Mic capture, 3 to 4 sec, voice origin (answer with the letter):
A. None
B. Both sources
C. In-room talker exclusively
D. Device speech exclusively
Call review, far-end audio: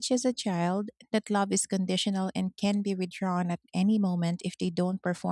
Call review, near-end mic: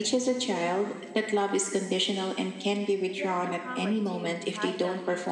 B